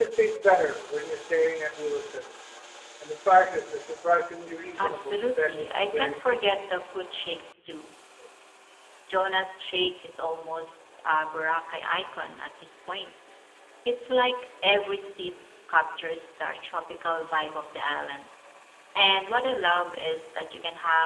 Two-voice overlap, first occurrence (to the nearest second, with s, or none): 5 s